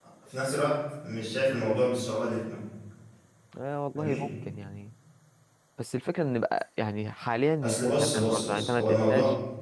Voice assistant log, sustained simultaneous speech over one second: present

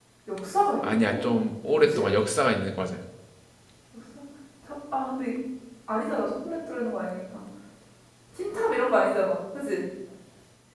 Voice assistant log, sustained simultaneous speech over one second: none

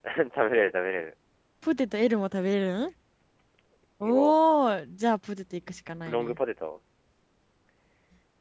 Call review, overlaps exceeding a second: none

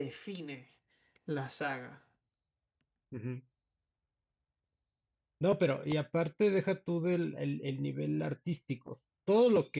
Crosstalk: none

